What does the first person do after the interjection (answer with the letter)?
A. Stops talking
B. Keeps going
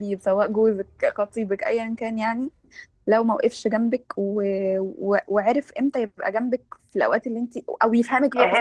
A